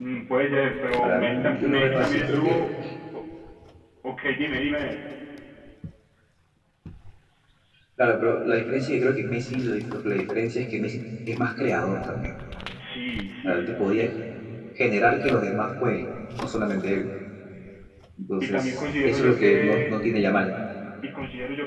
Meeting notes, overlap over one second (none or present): present